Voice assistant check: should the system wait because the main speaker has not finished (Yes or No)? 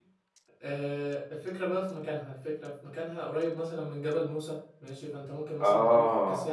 Yes